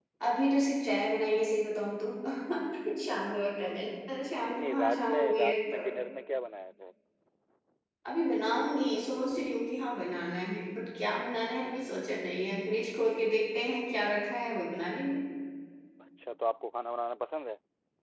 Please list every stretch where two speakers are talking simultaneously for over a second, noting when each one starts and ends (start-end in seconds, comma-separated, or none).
4.5-5.8